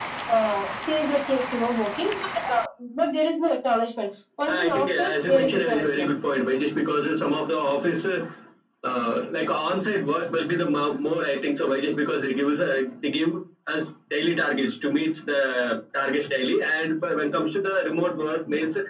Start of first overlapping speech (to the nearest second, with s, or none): 4 s